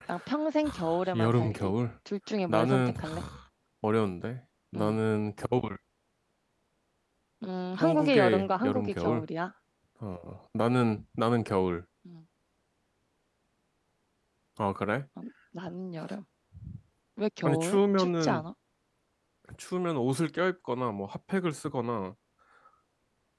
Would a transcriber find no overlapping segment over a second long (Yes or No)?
No